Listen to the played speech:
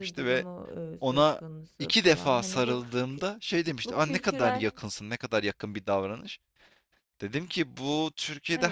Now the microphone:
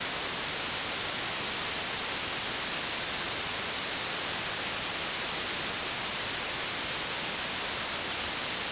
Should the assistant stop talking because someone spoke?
No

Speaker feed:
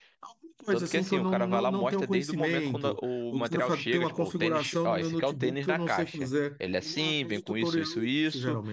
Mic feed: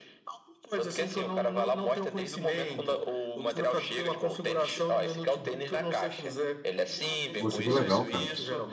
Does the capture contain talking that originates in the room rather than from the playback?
Yes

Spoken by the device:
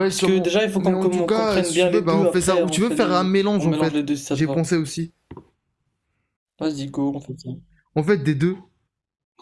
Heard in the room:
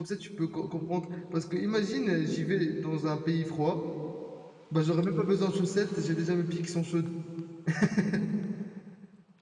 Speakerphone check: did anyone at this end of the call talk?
Yes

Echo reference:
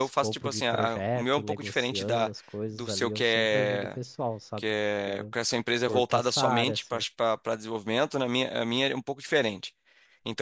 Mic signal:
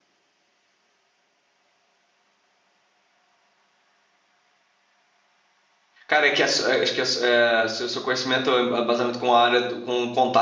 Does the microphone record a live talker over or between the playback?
Yes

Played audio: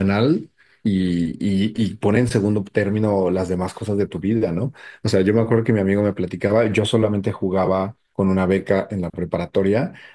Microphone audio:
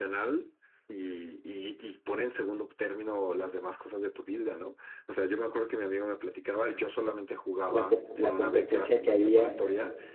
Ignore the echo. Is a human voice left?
Yes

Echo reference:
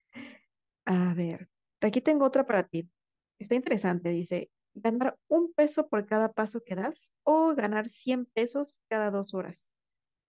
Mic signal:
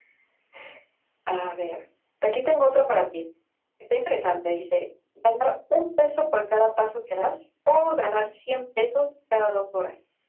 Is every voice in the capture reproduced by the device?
Yes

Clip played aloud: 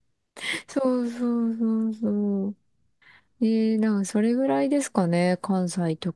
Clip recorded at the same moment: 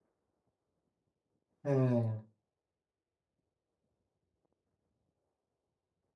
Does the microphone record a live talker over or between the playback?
Yes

